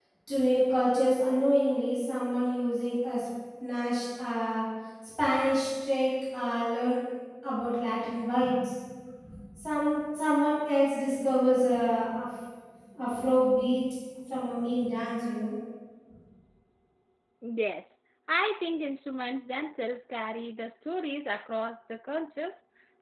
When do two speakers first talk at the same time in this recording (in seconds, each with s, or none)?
none